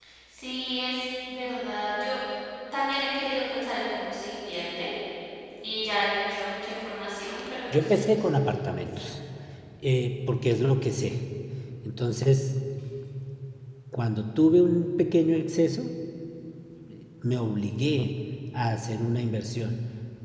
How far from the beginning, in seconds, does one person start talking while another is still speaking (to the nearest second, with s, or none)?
8 s